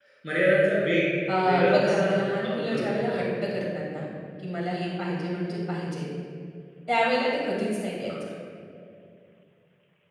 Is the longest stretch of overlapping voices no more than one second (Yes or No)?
No